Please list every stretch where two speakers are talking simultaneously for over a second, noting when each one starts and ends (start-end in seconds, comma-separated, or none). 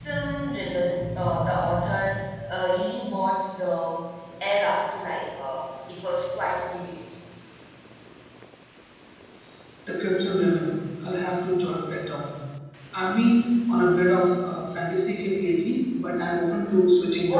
none